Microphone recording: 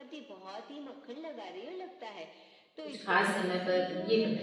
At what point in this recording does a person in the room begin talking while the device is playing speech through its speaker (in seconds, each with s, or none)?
2.8 s